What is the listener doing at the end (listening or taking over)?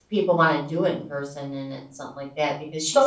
taking over